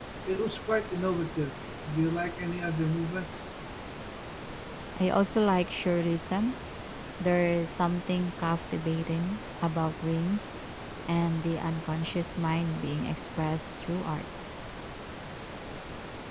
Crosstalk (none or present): none